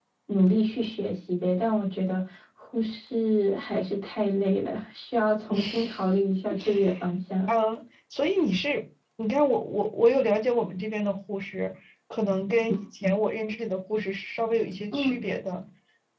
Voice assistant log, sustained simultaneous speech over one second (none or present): none